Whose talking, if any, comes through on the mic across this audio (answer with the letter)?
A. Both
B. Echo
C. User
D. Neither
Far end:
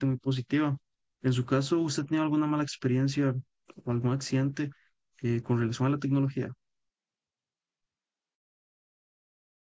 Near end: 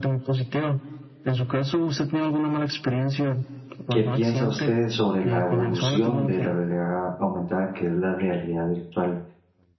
A